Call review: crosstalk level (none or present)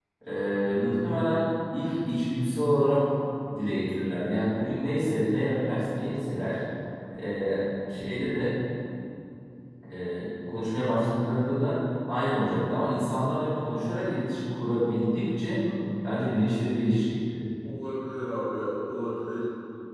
none